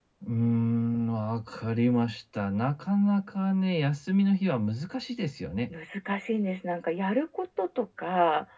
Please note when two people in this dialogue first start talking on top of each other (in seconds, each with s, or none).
none